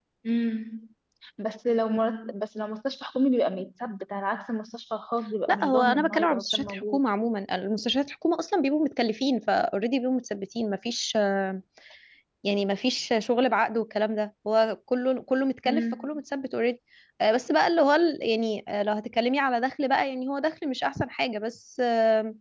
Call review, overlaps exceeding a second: present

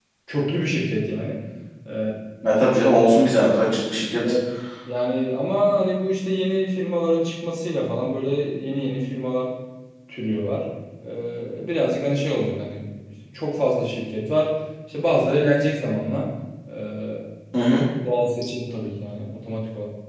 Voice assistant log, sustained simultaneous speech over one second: none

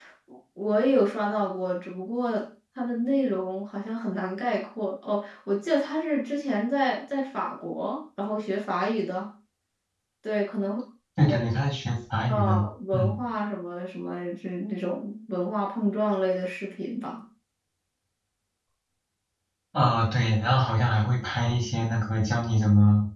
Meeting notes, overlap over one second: none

